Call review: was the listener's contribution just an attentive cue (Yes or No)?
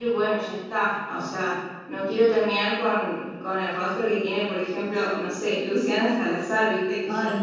No